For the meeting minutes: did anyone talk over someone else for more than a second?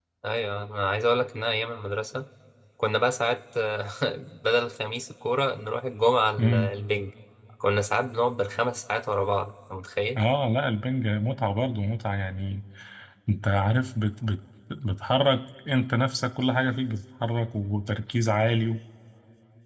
No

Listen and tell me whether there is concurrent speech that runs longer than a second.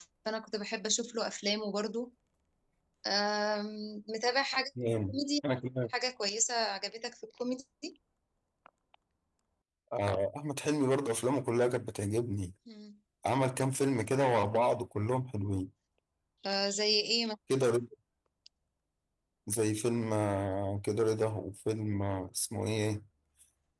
No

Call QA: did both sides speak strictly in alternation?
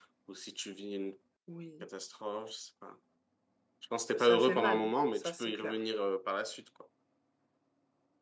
No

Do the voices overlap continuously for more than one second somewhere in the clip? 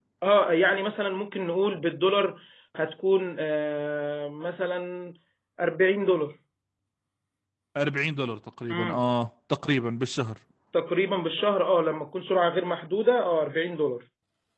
No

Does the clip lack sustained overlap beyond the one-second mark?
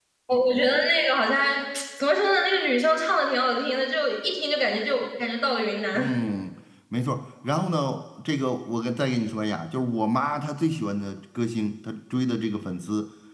Yes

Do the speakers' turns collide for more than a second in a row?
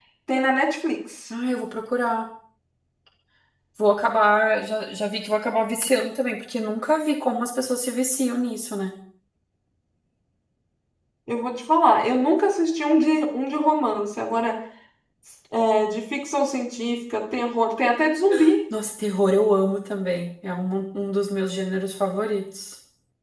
No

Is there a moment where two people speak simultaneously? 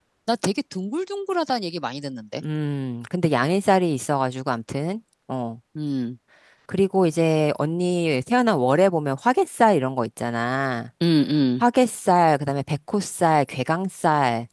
No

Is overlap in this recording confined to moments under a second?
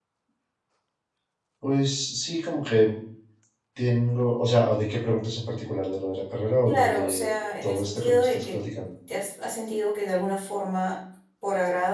No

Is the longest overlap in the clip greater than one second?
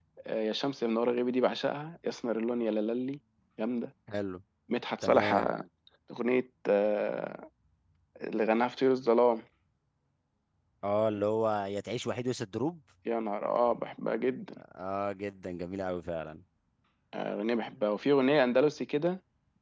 No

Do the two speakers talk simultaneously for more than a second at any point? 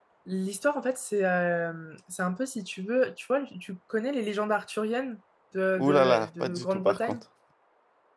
Yes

